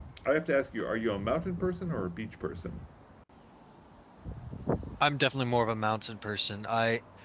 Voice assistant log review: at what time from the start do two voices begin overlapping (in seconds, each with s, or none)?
none